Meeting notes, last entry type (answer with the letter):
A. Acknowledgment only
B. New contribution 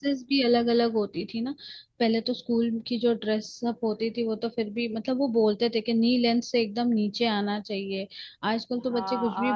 B